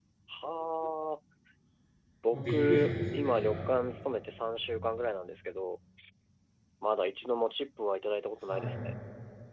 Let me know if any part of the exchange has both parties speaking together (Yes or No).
Yes